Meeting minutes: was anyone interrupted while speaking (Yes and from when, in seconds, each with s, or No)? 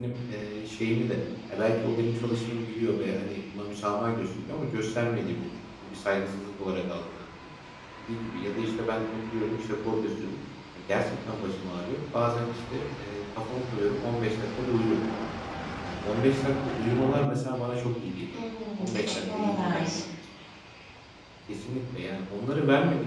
Yes, from 18.8 s